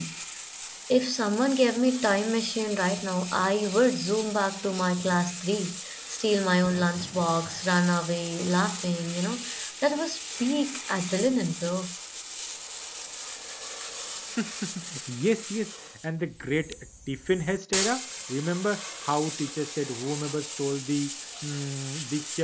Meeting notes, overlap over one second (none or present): none